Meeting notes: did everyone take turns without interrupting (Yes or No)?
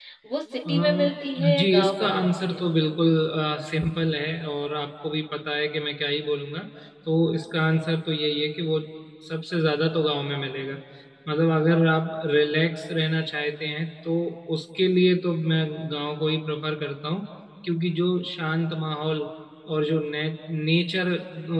No